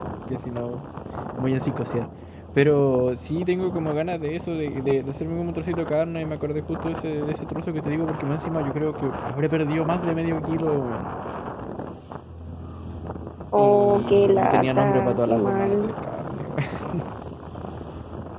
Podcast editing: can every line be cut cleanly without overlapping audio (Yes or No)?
No